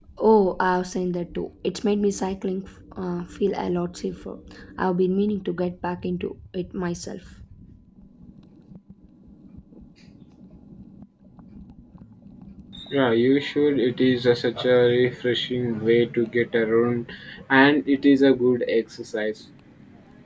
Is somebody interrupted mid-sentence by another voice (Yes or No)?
No